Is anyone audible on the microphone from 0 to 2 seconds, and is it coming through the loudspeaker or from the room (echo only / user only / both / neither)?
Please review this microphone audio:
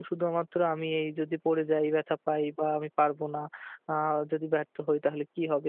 user only